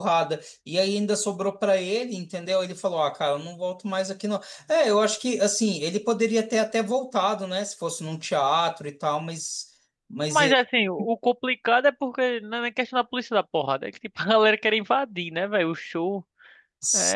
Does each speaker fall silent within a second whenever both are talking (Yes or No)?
Yes